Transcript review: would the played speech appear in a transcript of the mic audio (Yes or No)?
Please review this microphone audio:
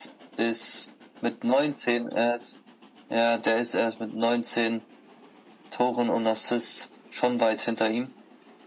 Yes